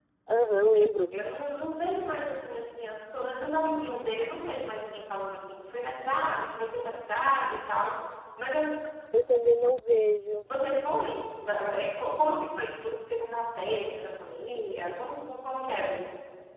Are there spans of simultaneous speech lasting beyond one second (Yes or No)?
No